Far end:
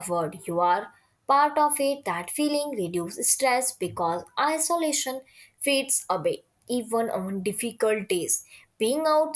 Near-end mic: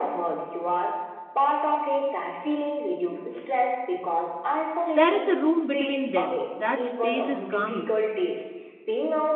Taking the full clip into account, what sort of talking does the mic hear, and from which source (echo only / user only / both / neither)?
both